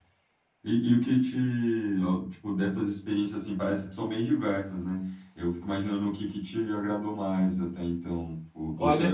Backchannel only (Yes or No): Yes